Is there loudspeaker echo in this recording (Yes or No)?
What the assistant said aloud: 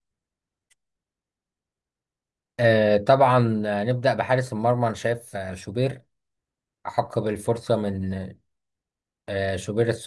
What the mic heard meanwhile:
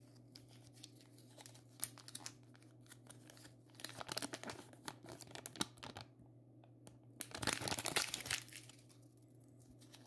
No